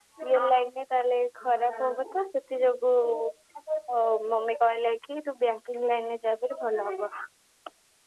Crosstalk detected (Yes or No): No